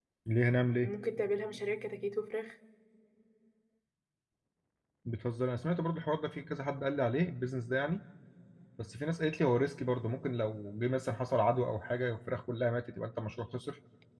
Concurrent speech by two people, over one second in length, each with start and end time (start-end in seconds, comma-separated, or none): none